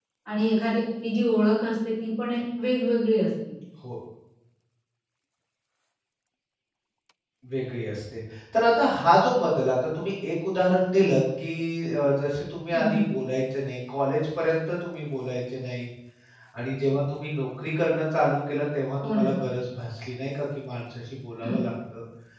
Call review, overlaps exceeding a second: none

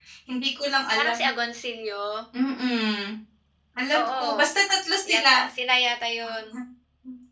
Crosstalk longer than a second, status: none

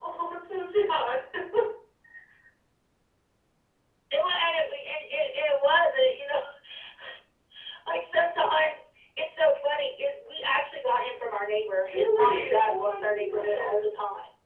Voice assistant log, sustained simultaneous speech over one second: present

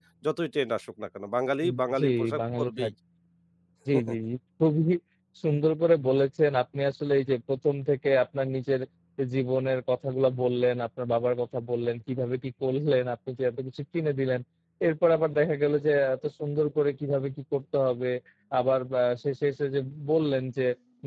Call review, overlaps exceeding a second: present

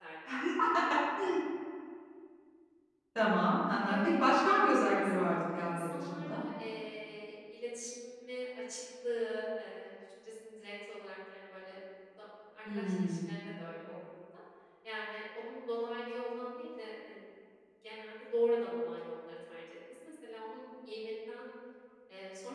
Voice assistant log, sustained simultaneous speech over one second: present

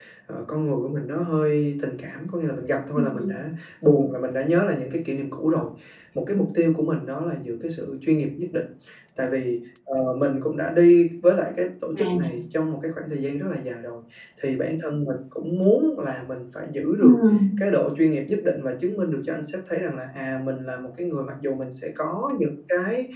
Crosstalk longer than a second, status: none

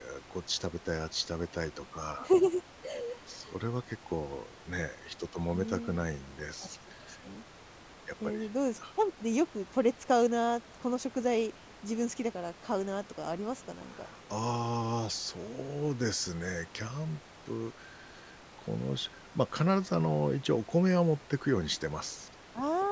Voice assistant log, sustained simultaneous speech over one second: none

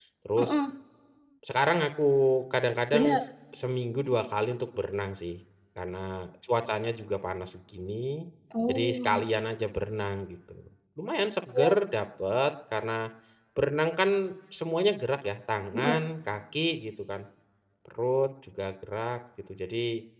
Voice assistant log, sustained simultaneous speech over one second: none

